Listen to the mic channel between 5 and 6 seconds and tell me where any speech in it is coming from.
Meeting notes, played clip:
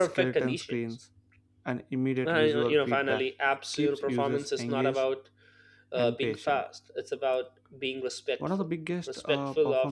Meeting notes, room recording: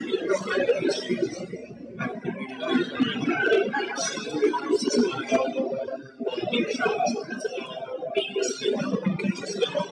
echo only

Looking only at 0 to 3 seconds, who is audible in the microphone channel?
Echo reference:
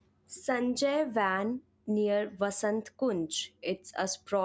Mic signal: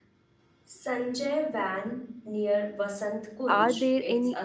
echo only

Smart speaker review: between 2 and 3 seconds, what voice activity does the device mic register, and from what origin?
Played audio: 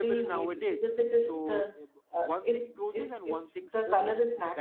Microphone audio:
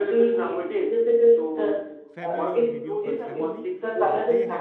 both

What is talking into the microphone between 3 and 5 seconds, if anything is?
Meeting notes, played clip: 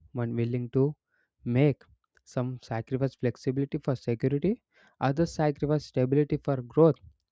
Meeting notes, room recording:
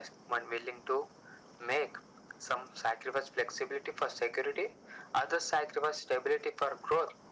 echo only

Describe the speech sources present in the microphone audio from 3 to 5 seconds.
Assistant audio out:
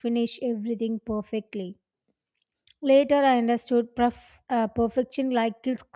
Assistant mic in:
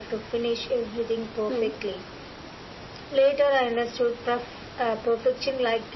echo only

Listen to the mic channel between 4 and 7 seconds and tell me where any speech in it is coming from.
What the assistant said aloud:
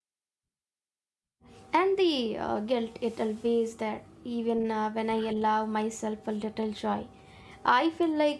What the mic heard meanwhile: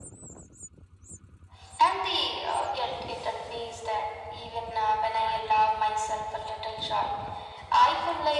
echo only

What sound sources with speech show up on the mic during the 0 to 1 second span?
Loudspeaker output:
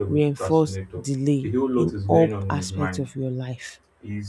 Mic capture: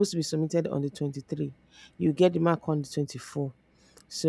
user only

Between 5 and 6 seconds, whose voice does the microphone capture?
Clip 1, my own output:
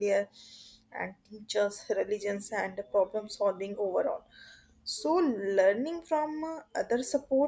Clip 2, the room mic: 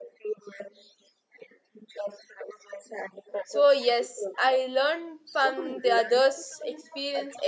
both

